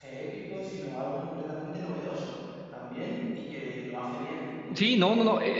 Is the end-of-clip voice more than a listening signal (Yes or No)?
Yes